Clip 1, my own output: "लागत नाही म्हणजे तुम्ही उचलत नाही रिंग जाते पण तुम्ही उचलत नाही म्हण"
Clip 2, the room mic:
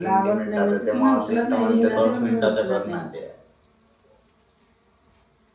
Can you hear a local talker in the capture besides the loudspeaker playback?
Yes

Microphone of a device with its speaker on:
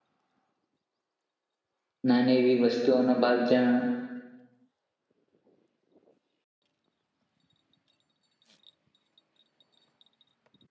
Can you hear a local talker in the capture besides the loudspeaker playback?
Yes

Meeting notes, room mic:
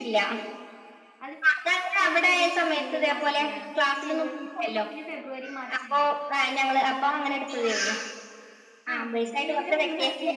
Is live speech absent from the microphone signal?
No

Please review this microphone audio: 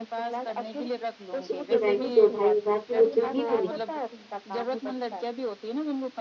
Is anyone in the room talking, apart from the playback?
Yes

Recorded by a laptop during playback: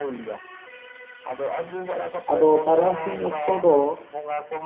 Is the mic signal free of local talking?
No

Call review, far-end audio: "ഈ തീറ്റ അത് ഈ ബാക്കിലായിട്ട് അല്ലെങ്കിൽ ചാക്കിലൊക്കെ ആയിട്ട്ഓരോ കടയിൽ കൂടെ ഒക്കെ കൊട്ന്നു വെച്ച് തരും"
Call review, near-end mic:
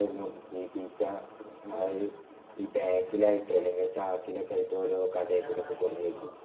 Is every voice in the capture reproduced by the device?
No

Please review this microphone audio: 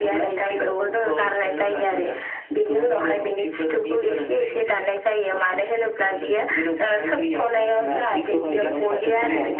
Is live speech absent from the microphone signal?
No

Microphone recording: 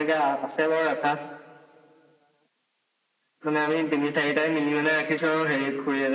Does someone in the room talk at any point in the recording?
No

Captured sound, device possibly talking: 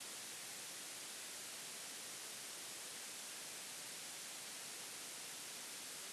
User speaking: No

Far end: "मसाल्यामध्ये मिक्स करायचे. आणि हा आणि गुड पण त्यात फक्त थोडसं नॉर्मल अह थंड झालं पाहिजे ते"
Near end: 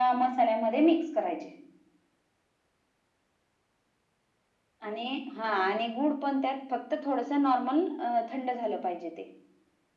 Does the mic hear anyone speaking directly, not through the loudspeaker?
No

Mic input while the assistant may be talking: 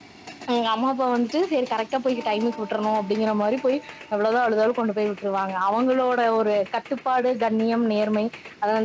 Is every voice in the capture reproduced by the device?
No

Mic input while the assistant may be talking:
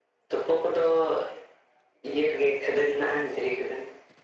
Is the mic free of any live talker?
Yes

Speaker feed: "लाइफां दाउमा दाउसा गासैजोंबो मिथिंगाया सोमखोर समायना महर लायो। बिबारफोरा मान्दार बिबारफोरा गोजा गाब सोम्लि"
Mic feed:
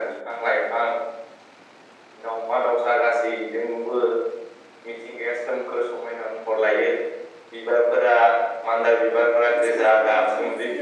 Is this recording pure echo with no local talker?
No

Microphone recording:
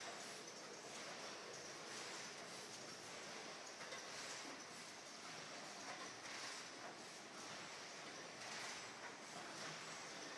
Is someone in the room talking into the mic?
No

